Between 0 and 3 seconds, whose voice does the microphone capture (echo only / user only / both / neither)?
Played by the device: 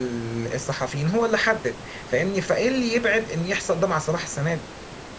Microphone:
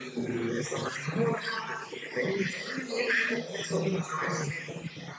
echo only